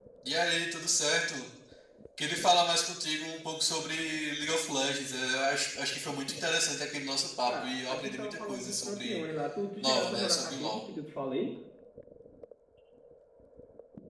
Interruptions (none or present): present